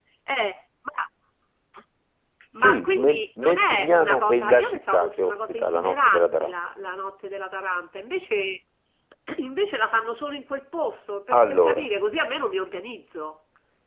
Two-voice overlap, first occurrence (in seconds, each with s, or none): 2.5 s